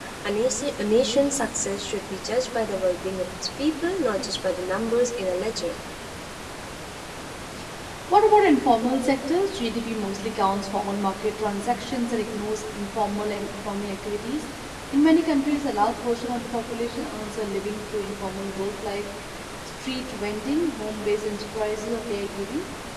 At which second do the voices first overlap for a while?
none

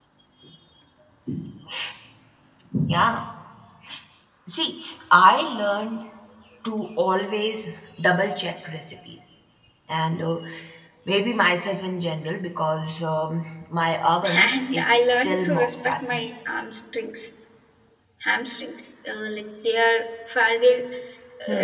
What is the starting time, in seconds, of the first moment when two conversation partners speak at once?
14.2 s

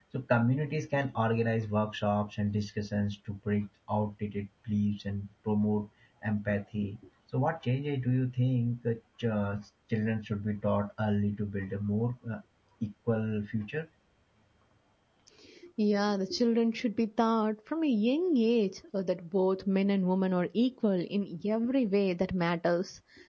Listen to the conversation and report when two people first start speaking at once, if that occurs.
none

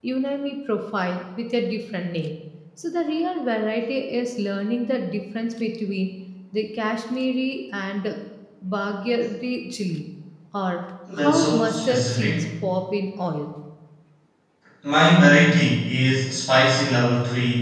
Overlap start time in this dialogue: 11.2 s

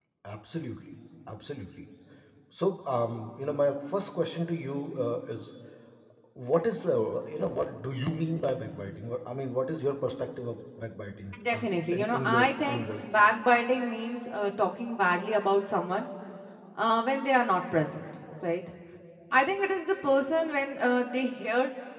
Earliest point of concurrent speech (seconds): 11.3 s

